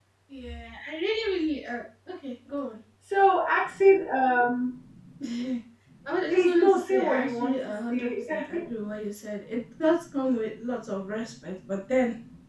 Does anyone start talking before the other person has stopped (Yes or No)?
Yes